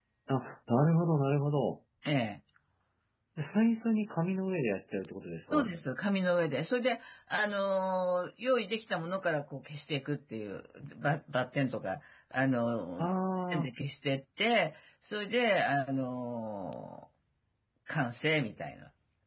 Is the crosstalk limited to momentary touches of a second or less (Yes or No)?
Yes